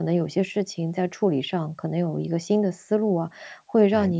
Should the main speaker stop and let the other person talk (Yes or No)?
No